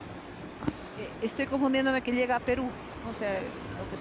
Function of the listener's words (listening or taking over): listening